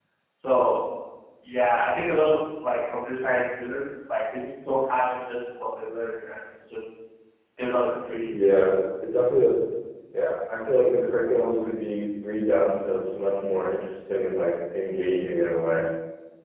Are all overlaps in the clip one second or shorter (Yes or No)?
Yes